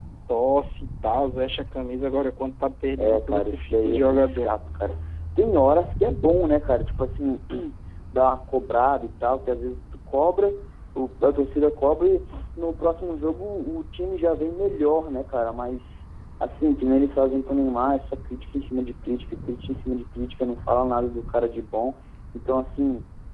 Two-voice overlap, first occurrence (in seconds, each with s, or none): 3.0 s